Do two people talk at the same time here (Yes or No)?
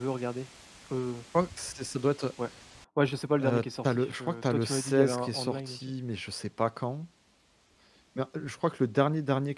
Yes